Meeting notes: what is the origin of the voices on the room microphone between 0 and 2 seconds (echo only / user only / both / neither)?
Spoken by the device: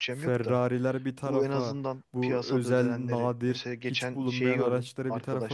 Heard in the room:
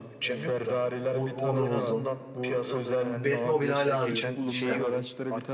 both